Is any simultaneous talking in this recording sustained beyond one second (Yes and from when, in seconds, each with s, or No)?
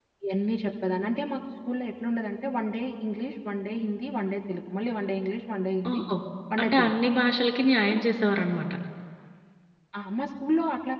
No